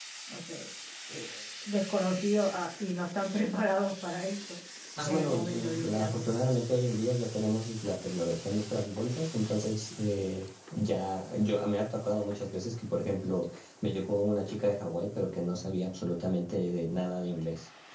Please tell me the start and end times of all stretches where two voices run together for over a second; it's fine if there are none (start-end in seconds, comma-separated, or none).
5.1-6.3